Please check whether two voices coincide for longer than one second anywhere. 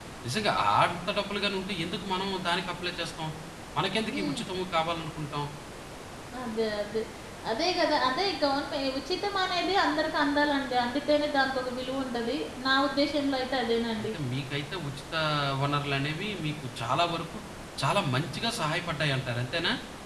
No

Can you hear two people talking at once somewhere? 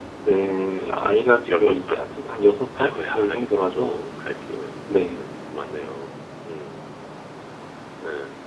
Yes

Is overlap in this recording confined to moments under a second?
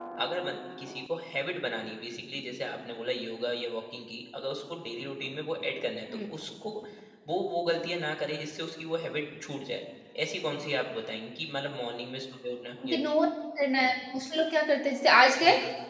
Yes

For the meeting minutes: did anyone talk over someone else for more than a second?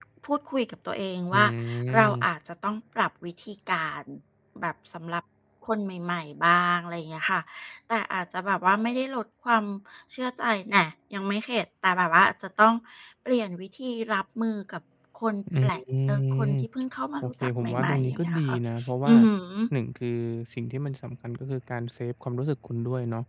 Yes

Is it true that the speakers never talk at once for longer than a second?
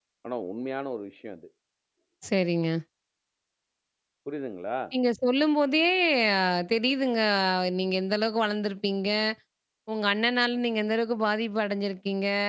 Yes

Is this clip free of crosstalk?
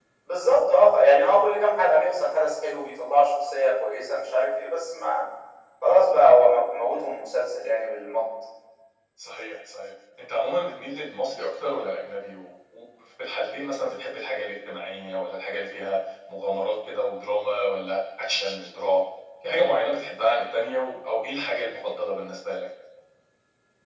Yes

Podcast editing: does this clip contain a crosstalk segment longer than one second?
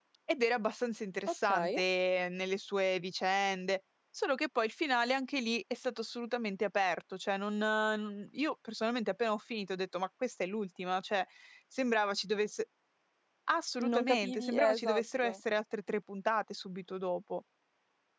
Yes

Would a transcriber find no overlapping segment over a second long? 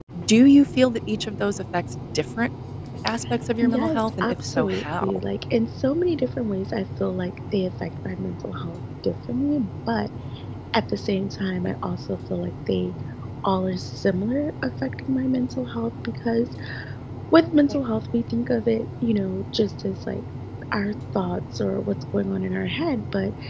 No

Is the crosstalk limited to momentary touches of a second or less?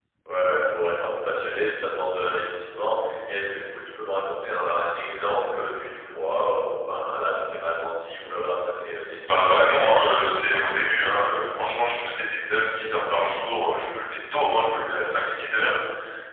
No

